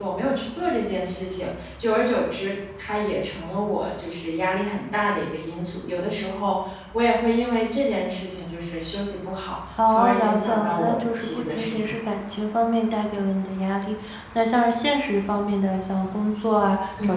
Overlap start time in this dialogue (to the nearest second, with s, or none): 10 s